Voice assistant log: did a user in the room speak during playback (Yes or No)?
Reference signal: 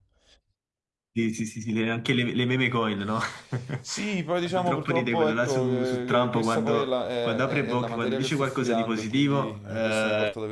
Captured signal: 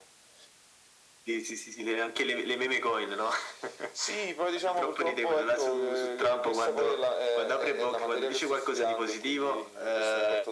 No